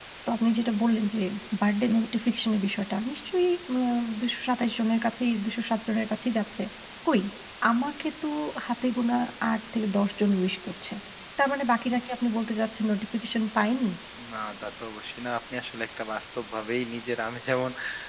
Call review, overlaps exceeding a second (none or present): none